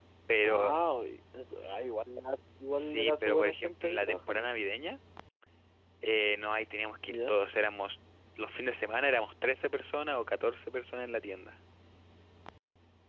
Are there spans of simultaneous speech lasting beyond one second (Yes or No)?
Yes